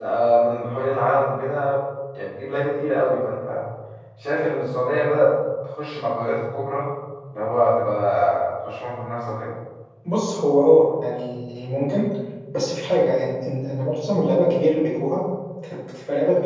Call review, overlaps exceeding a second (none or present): none